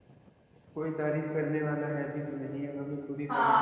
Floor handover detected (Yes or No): Yes